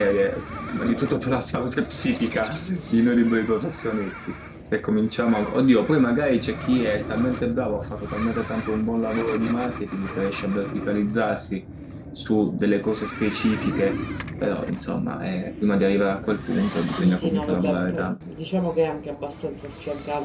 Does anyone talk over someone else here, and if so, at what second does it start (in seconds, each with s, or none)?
16.9 s